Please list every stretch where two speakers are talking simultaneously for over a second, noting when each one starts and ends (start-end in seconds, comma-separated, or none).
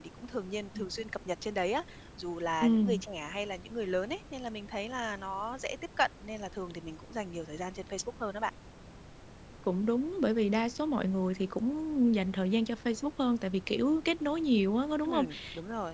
none